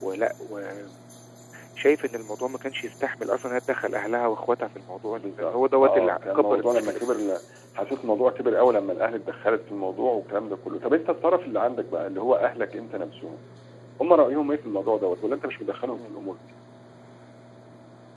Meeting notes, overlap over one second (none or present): present